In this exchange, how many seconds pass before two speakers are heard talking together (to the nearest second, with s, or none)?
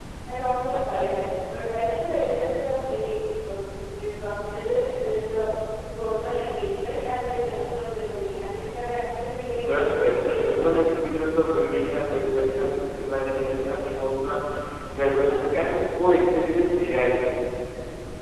10 s